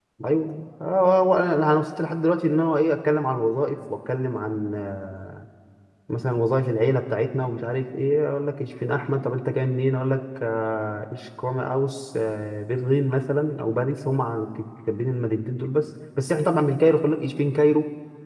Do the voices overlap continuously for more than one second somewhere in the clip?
No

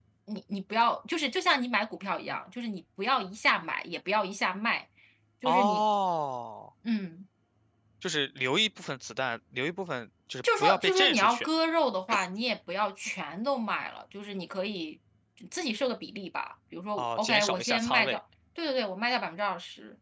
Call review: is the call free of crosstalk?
No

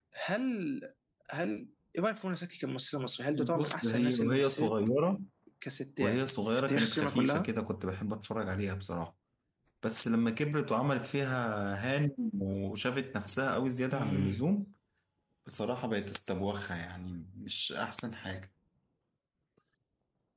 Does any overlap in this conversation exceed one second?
Yes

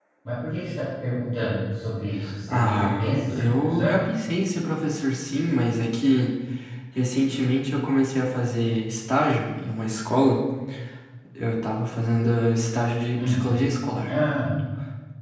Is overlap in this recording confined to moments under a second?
No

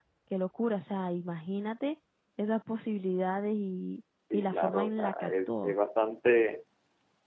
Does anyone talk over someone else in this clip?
Yes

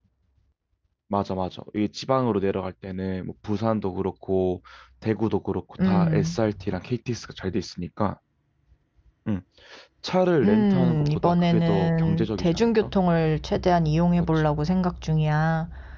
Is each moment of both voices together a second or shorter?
No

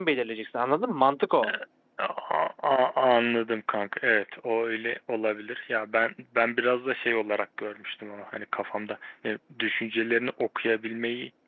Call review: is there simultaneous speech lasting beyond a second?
No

